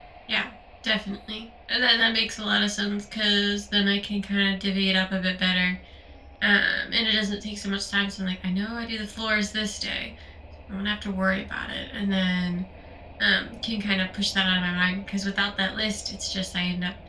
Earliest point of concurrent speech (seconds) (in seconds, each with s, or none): none